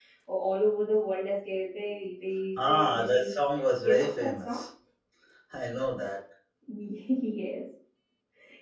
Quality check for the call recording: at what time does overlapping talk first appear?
2.5 s

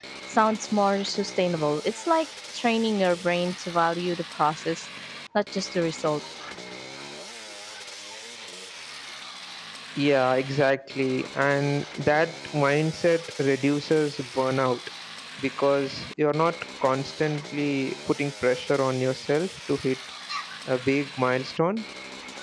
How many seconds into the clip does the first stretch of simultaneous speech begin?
none

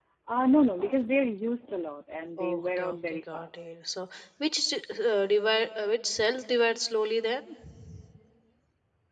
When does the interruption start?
2.4 s

